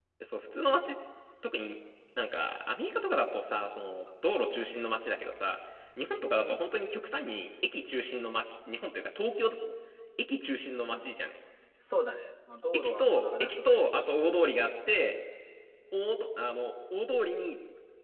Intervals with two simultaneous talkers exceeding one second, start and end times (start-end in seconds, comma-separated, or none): 12.7-14.1